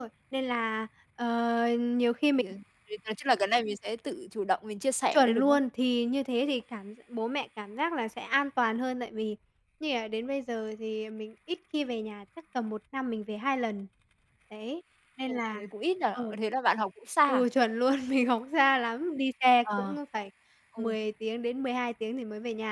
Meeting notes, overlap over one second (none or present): none